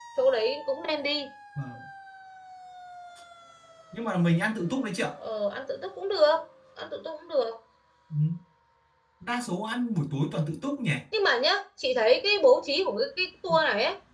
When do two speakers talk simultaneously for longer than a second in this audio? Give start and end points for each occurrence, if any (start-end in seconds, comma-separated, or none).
none